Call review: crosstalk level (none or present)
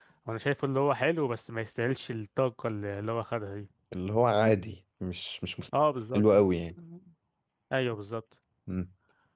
none